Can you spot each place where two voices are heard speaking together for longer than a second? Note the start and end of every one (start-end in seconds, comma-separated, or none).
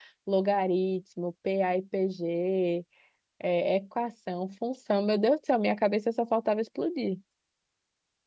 none